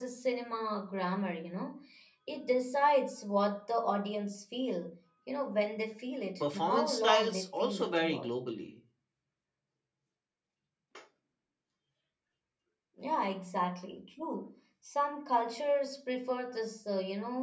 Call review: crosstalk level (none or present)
present